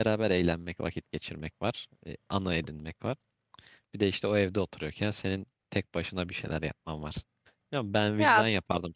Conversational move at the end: listening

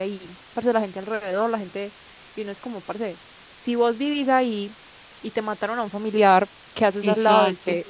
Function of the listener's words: taking over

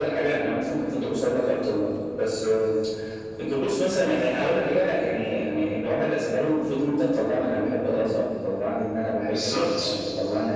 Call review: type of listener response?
listening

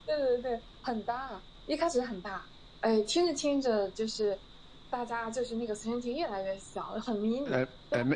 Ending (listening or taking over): taking over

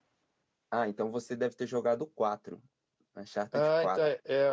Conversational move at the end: taking over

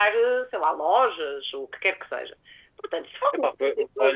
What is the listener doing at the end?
taking over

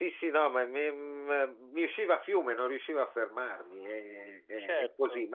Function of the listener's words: listening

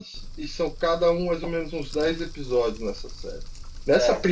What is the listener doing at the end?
taking over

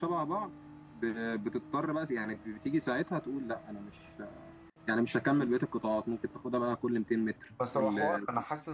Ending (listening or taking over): taking over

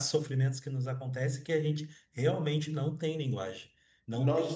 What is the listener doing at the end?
taking over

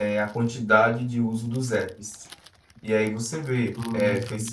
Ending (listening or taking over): listening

